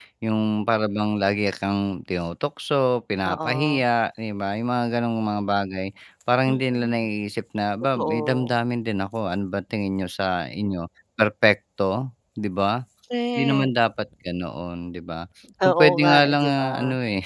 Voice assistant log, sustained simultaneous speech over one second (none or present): present